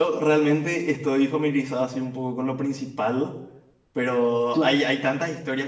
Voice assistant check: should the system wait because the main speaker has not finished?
Yes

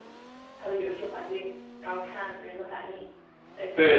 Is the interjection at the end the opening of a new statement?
Yes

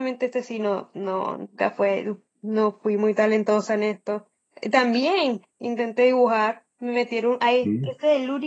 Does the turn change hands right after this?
No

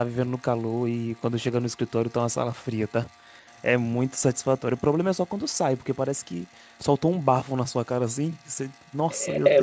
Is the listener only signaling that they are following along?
No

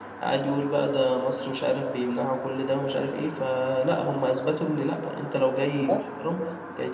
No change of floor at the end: Yes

